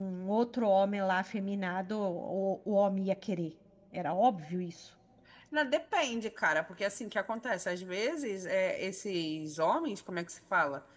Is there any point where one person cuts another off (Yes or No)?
No